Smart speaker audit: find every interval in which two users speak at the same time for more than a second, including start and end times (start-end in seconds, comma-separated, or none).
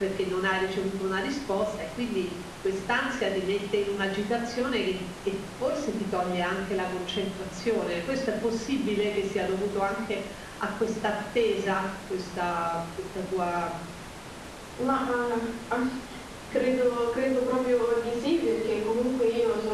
none